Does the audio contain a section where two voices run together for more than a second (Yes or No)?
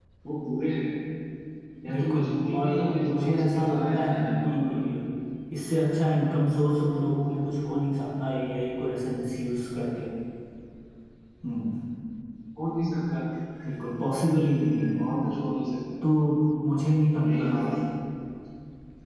Yes